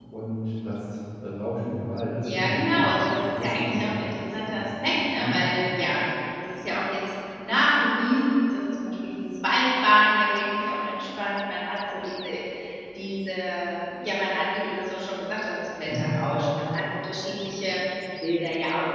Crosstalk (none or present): present